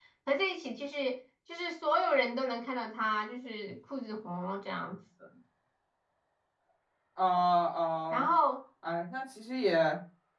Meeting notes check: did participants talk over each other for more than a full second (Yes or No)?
No